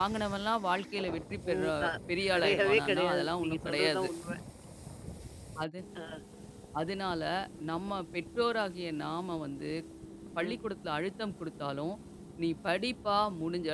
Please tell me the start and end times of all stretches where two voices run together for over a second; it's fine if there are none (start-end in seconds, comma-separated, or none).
2.3-4.1